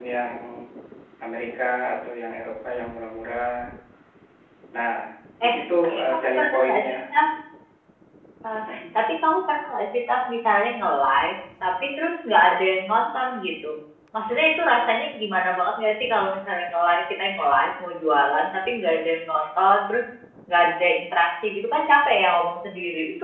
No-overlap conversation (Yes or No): No